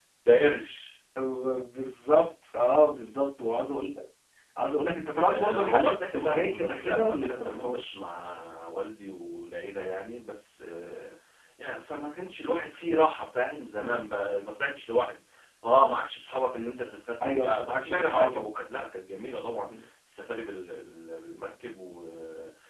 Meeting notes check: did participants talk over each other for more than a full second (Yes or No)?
Yes